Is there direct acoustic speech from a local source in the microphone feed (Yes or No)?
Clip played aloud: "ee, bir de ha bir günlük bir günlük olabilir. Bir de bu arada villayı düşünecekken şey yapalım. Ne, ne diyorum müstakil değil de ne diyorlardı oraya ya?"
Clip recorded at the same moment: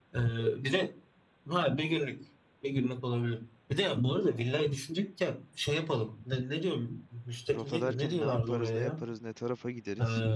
Yes